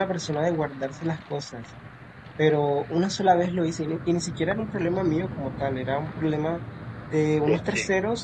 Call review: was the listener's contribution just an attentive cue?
Yes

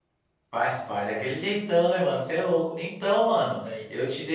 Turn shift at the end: No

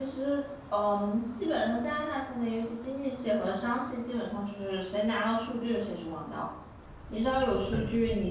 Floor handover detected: No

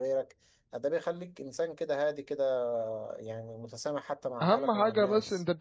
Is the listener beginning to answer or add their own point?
Yes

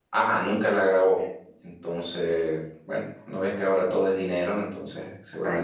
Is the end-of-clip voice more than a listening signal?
No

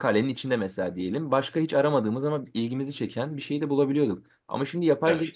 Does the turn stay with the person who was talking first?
Yes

